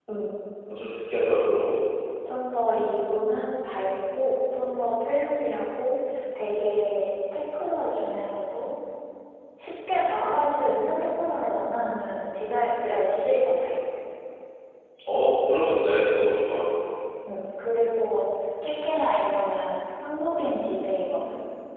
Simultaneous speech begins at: none

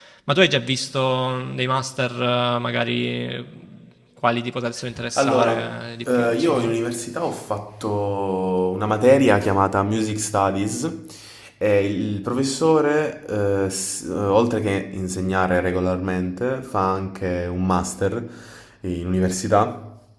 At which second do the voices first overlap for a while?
5.2 s

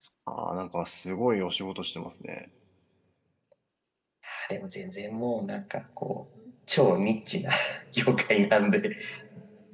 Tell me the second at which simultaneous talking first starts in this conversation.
none

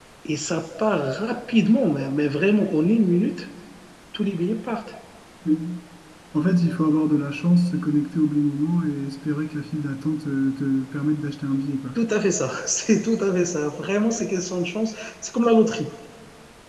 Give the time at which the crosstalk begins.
none

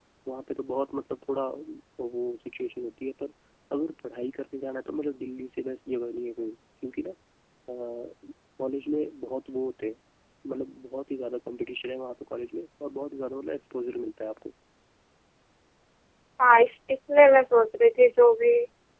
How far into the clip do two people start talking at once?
none

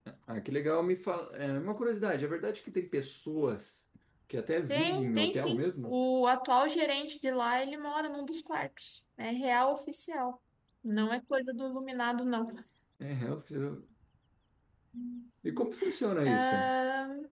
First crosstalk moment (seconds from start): 4.7 s

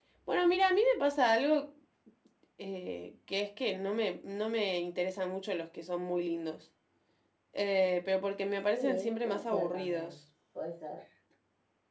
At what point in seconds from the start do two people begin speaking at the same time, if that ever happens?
8.7 s

